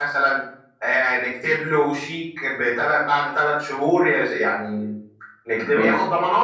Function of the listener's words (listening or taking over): listening